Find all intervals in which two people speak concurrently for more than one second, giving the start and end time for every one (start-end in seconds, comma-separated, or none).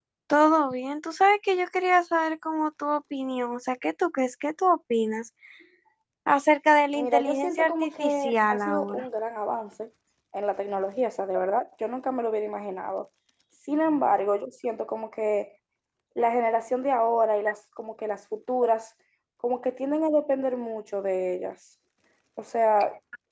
6.9-9.0